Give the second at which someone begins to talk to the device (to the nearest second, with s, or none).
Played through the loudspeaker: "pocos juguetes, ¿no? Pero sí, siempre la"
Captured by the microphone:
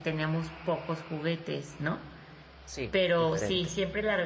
3 s